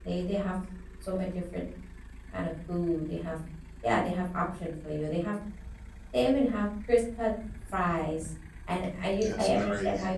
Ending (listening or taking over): listening